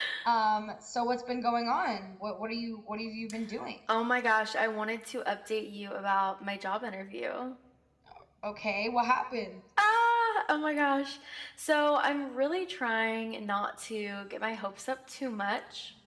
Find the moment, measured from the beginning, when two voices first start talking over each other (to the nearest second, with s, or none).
none